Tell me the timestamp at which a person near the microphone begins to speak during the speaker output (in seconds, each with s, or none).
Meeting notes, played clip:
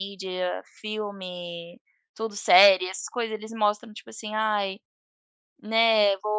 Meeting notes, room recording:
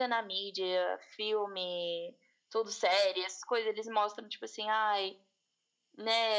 none